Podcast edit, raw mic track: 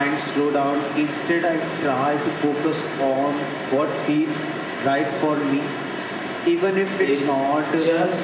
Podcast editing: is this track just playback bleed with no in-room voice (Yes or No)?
No